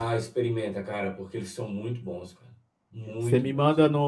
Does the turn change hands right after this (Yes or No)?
Yes